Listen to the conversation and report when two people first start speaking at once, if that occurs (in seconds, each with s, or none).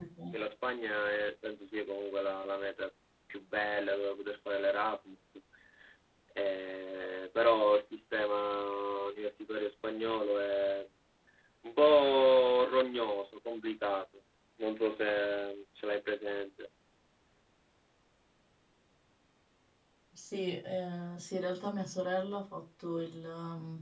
none